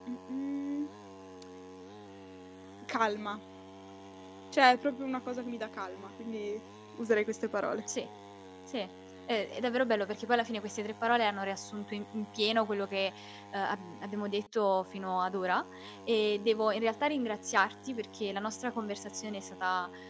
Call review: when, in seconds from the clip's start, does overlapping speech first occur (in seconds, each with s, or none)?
none